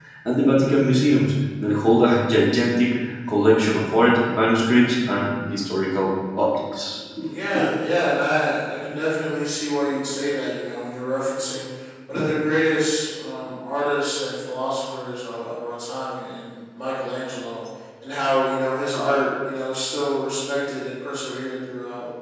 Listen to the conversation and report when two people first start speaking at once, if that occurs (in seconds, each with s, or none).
none